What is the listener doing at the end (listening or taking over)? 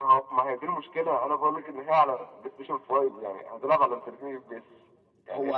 taking over